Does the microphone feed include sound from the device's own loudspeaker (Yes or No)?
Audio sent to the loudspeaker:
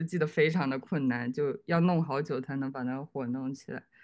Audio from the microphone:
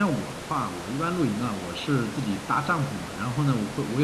No